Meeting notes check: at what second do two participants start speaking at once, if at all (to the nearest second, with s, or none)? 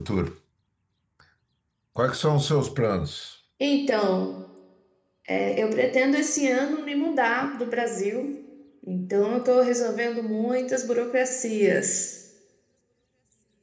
none